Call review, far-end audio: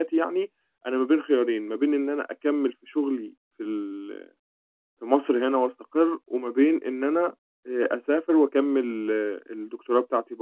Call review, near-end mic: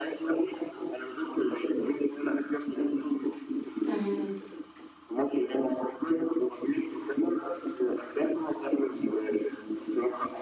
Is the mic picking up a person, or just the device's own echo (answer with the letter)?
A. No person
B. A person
B